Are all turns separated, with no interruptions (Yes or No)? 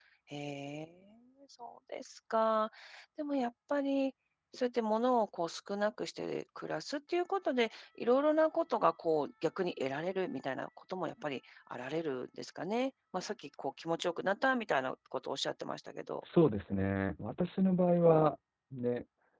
Yes